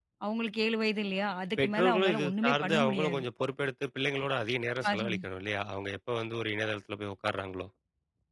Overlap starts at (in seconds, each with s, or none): 1.6 s